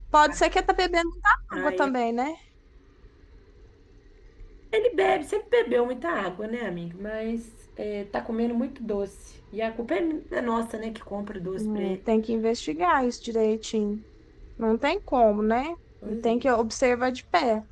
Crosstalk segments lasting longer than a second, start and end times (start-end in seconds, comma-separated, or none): none